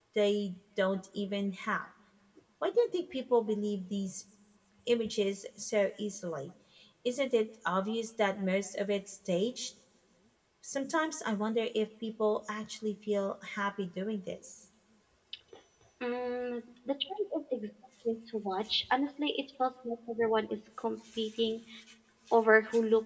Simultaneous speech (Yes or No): No